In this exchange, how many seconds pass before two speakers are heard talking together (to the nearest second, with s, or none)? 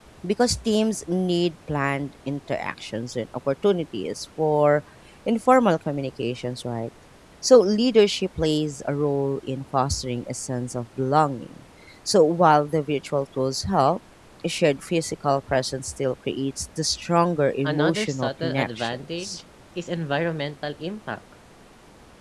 18 s